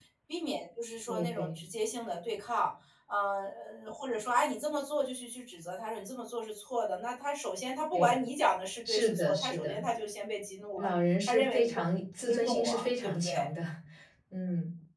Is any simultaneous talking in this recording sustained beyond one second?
Yes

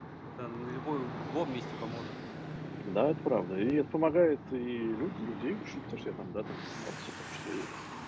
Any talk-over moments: No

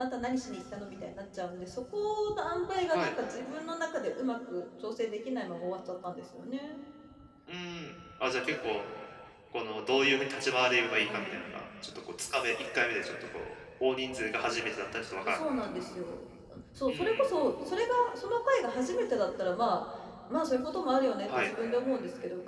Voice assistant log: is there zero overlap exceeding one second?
Yes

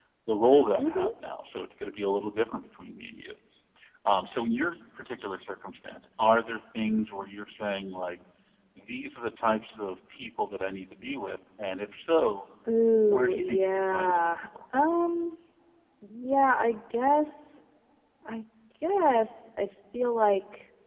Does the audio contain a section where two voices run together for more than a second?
Yes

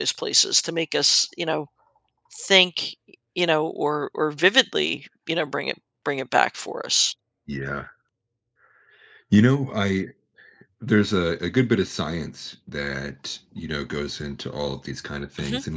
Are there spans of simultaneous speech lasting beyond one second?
No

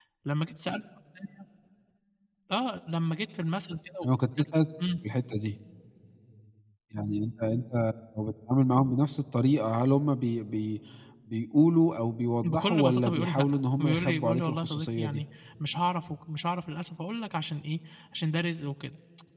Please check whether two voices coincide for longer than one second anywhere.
Yes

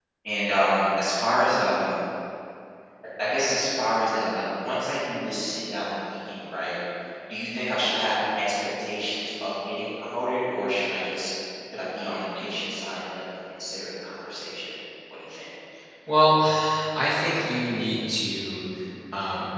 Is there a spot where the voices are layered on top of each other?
No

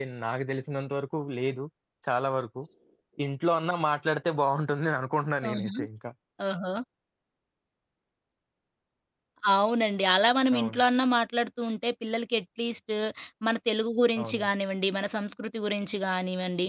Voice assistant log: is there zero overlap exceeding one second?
Yes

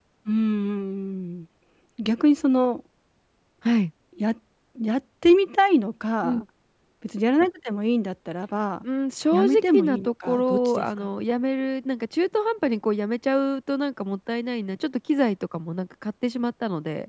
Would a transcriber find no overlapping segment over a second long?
No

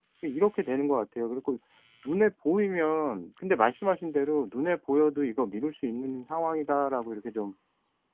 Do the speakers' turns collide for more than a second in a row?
No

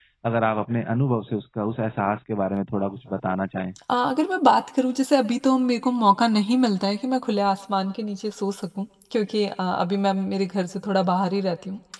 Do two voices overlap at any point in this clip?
No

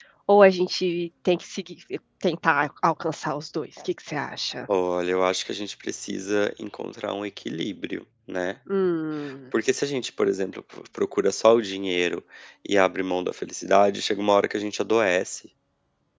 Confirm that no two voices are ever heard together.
Yes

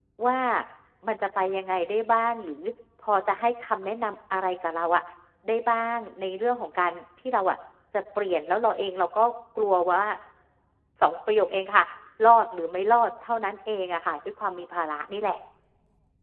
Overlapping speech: No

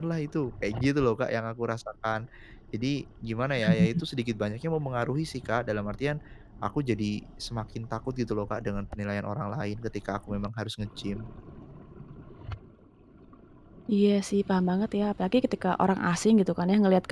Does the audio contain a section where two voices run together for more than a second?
No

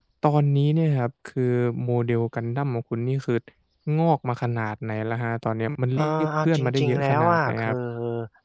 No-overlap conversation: No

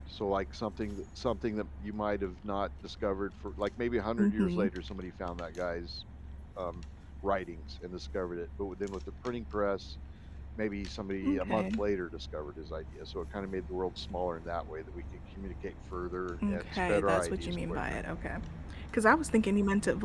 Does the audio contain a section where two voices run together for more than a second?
Yes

